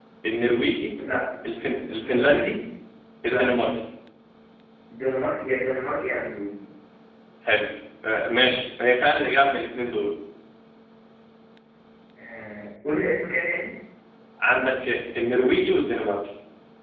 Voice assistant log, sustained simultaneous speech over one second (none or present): none